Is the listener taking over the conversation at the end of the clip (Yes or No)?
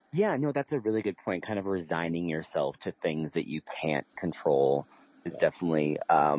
No